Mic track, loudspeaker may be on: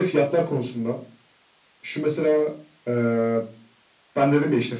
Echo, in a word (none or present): present